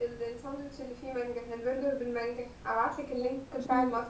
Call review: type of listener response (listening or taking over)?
taking over